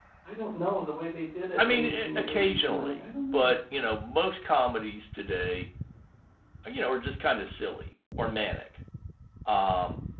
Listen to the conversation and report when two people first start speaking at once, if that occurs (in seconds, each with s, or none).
1.6 s